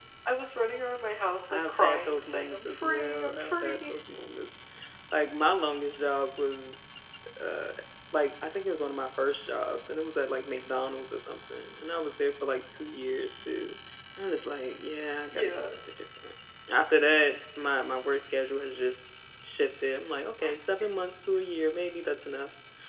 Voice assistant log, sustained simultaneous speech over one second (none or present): present